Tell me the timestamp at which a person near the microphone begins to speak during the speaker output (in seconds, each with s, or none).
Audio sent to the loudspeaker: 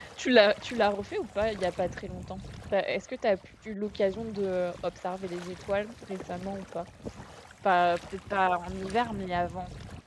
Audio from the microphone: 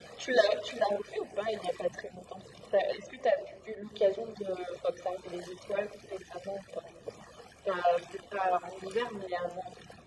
none